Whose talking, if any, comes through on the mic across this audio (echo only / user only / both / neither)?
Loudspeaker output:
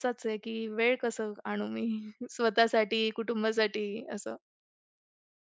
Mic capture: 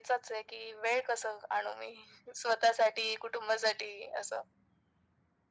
echo only